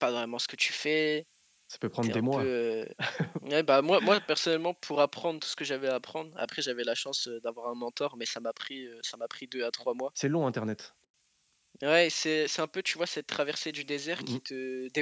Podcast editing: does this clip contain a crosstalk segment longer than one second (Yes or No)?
No